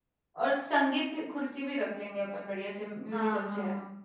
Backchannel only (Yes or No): No